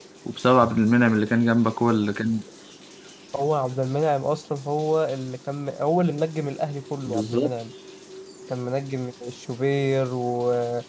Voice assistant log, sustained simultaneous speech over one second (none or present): none